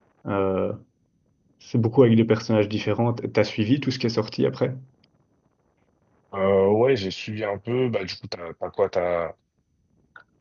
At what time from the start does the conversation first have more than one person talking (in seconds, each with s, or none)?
none